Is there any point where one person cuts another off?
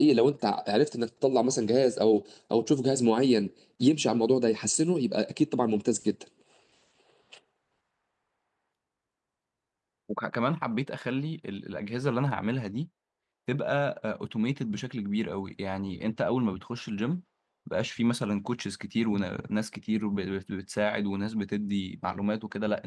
No

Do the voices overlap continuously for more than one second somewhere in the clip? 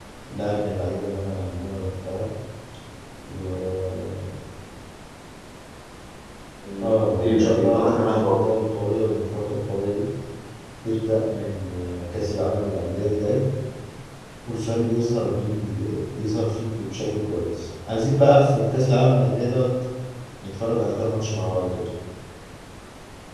Yes, from 6.8 s

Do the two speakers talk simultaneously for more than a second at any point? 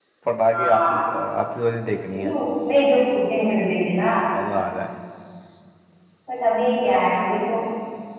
No

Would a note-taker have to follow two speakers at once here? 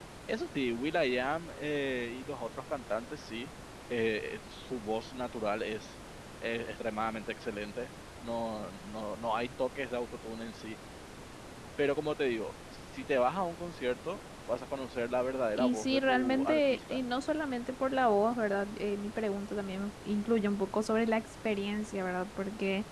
Yes, from 15.5 s

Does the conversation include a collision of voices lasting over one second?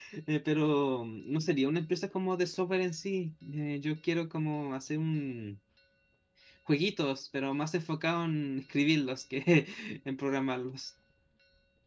No

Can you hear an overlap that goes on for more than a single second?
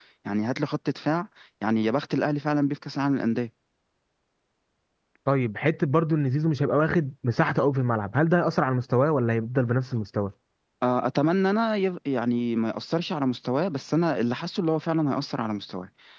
No

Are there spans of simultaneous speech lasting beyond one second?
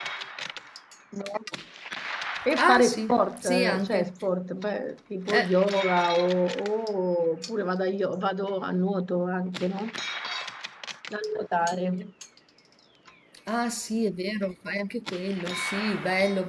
Yes, from 2.5 s

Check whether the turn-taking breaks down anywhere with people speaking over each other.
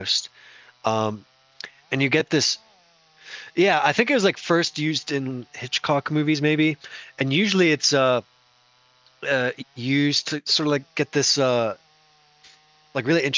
No

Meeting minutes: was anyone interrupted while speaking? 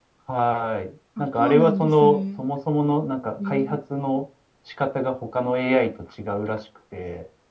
Yes, from 1.2 s

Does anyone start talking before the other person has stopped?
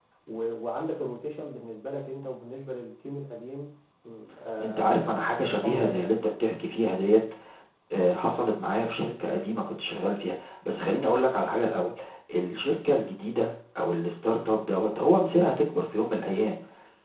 Yes, from 4.6 s

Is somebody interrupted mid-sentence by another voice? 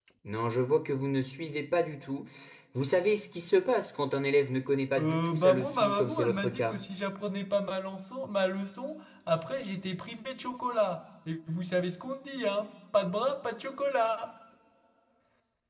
Yes, from 5.0 s

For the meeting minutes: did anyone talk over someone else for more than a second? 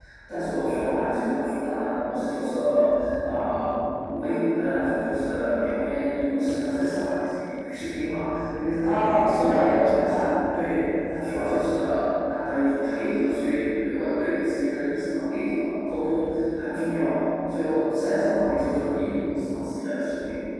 Yes, from 8.8 s

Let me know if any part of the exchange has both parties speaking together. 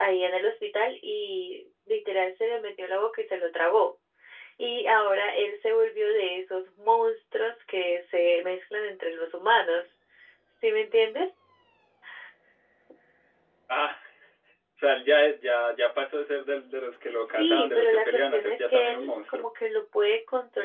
Yes, from 17.2 s

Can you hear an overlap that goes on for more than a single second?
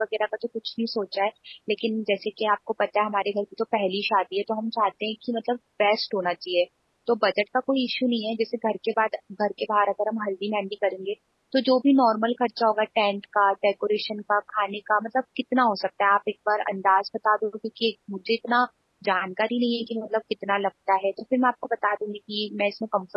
No

